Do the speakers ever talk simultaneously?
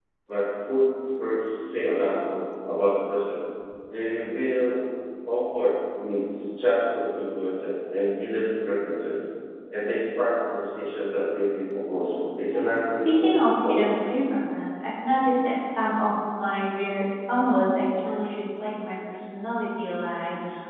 Yes, from 12.5 s

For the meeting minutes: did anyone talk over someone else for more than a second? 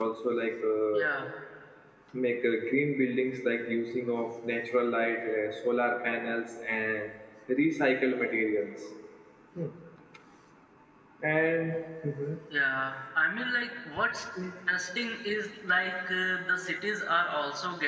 No

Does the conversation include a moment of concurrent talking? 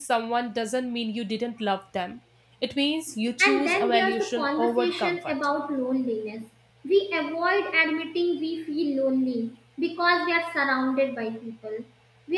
Yes, from 3.4 s

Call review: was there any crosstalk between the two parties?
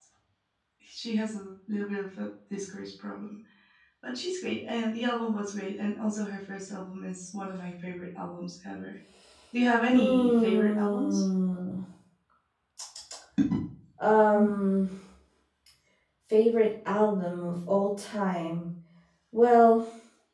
Yes, from 9.9 s

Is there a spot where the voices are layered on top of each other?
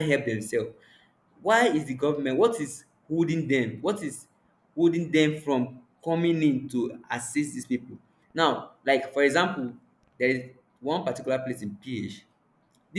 No

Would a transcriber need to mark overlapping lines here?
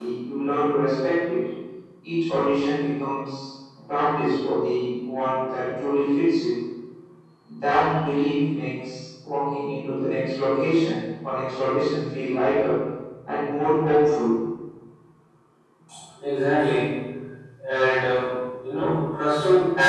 No

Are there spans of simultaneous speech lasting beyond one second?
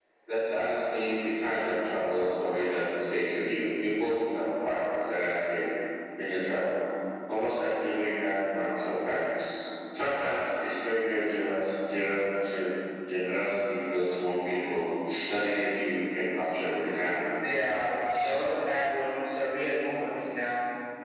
No

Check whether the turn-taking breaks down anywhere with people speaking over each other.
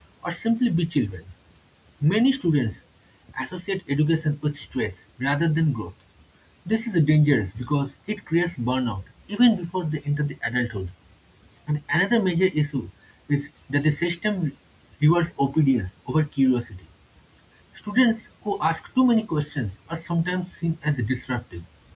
No

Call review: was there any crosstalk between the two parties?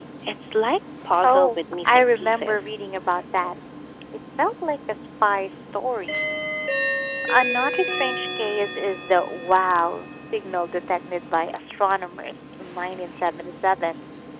Yes, from 1.2 s

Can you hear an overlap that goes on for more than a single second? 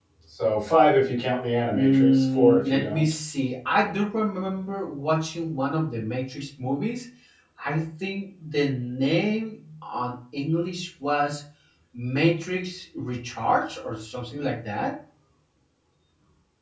Yes, from 1.7 s

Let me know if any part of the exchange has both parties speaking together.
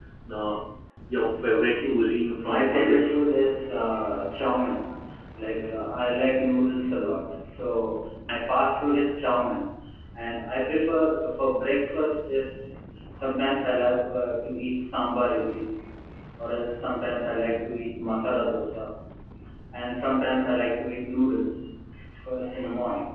Yes, from 1.6 s

